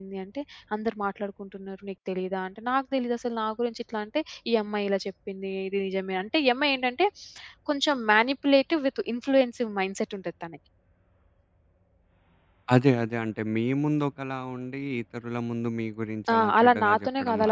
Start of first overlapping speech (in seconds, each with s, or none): 16.3 s